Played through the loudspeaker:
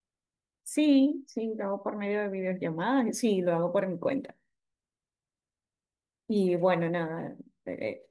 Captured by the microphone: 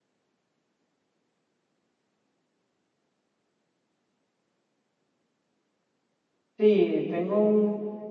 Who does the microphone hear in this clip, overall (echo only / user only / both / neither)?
user only